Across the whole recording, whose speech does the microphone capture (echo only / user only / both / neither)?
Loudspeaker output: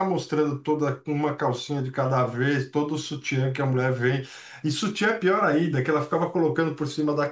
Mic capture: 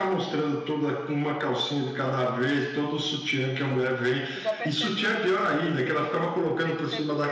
both